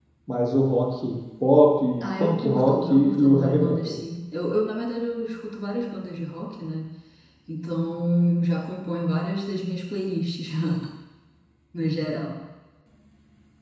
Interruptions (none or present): present